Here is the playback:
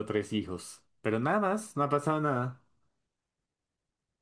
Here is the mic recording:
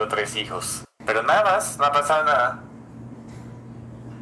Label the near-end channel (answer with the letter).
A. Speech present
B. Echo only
B